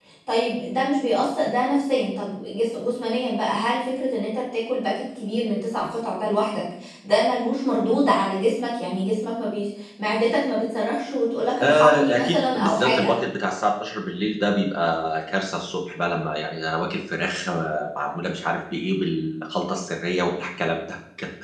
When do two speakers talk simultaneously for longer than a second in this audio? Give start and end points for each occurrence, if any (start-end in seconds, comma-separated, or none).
11.6-13.1